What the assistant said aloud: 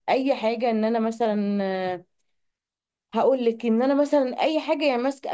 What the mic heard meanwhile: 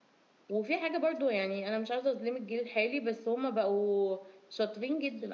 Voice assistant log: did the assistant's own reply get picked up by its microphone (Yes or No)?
No